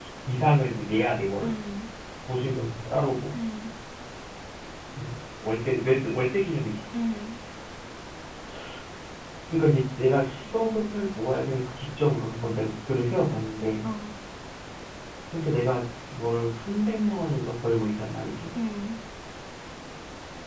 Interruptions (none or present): none